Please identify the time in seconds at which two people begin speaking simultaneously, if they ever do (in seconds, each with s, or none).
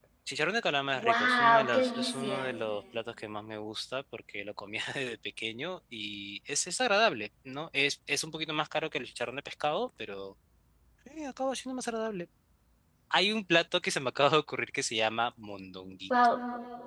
0.9 s